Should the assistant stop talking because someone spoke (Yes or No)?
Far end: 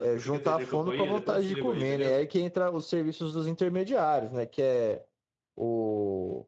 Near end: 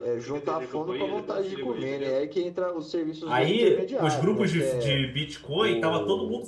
Yes